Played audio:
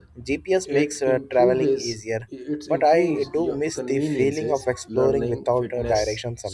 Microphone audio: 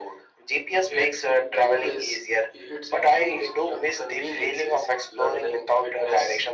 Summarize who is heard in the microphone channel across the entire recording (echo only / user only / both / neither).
echo only